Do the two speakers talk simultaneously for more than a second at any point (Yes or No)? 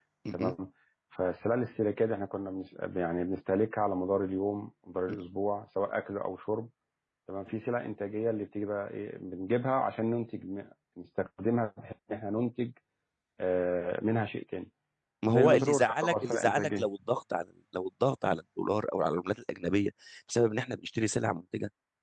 Yes